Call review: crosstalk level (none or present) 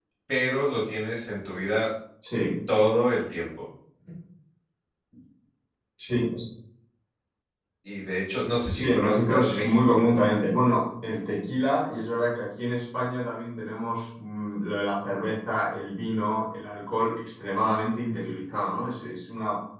present